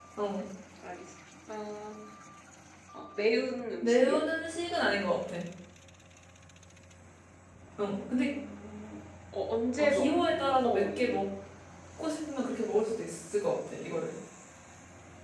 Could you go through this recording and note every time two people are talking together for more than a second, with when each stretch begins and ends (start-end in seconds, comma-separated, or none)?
9.8-11.2